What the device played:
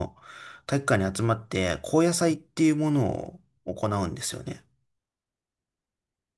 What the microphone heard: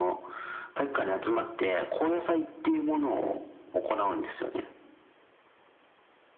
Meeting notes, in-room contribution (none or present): none